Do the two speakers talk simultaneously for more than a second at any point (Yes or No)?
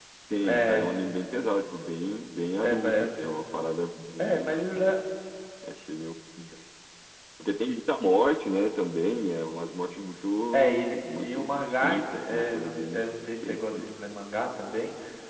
Yes